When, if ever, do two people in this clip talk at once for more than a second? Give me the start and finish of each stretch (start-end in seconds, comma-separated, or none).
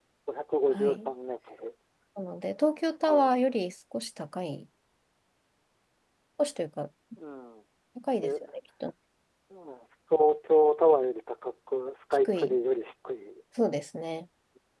none